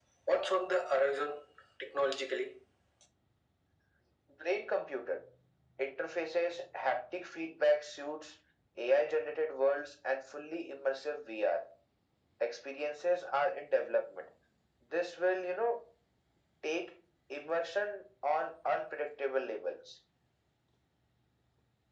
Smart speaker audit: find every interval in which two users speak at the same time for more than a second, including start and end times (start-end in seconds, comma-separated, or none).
none